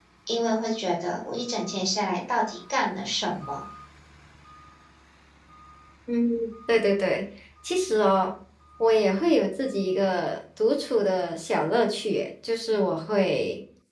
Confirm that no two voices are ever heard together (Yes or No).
Yes